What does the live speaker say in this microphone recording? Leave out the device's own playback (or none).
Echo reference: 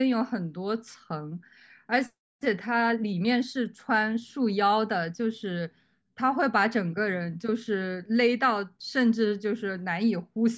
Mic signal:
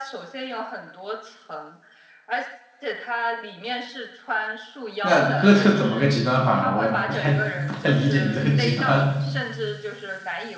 那哥特怎么个极端法呢？我不太不太理解你这个极端，